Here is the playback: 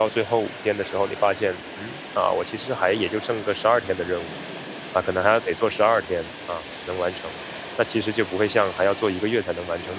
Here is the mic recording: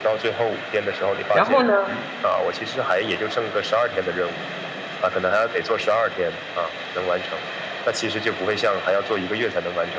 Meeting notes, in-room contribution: present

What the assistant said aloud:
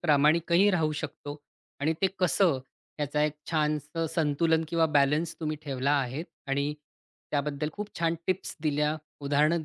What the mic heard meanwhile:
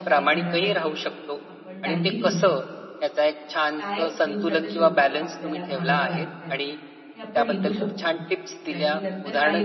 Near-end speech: present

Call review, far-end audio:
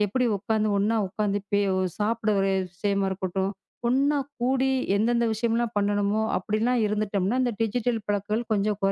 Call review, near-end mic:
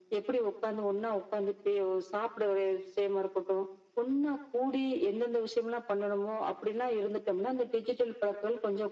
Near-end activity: none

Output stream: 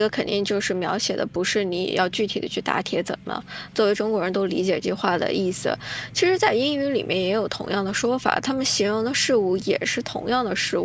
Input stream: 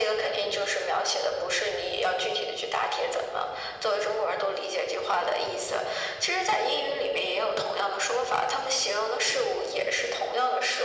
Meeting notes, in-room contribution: none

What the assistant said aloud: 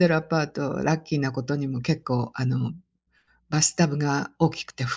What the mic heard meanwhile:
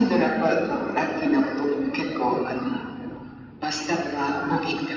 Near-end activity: none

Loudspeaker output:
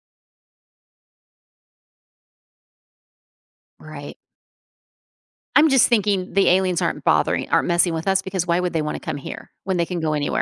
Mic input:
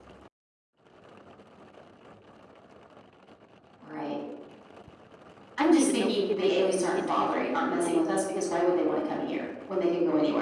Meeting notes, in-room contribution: present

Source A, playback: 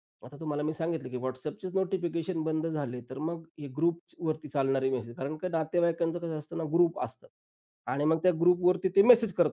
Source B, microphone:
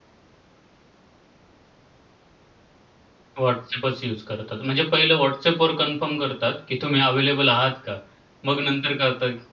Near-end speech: present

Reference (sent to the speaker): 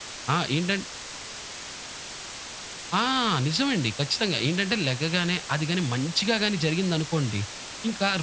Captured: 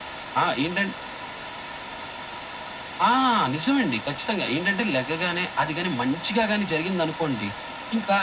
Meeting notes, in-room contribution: none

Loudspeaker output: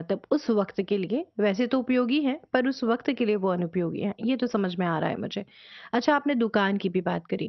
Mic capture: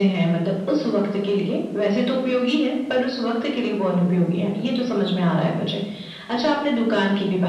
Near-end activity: none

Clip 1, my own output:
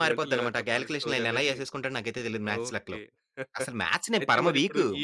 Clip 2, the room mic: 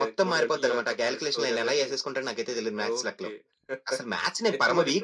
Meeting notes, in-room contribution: none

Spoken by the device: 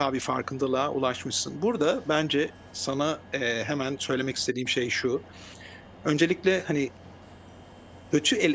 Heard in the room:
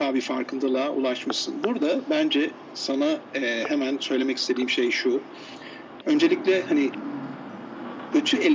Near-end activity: none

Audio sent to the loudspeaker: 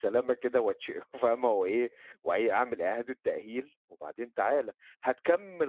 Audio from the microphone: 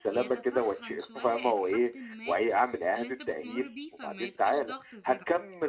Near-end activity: present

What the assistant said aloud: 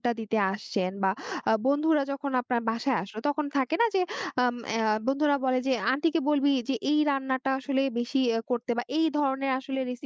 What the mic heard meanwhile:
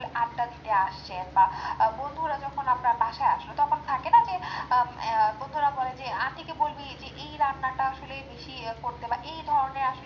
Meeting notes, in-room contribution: none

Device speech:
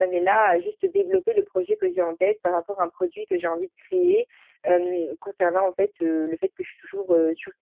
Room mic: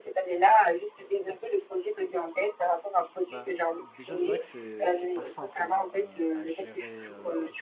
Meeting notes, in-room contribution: present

